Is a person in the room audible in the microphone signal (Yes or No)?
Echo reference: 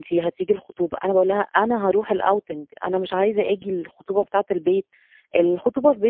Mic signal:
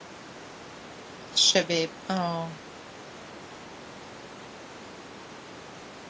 Yes